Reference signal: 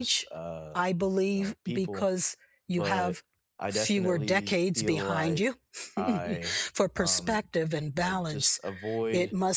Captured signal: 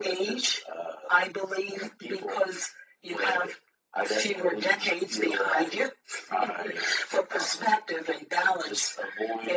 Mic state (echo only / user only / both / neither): echo only